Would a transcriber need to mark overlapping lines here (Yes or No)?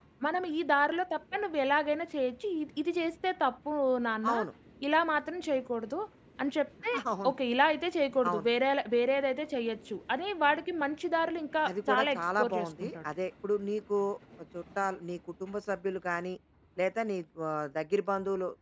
Yes